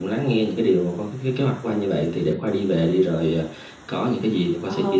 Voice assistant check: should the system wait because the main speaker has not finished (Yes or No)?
No